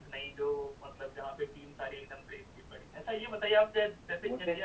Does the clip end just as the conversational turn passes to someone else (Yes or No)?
No